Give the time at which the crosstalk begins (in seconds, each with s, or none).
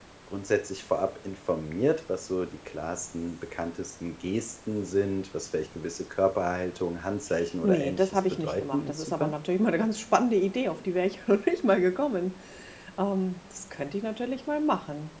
7.6 s